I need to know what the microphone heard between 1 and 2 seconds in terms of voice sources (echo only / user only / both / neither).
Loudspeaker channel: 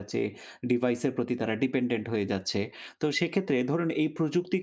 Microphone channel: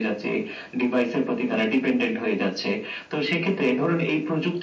echo only